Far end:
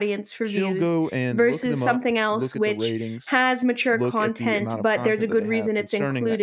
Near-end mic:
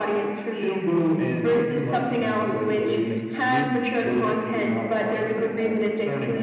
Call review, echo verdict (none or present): present